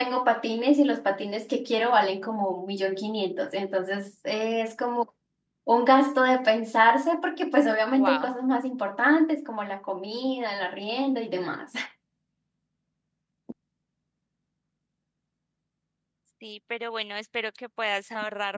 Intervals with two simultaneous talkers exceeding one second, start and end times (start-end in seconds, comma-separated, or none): none